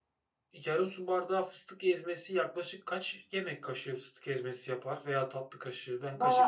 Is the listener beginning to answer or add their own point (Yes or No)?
Yes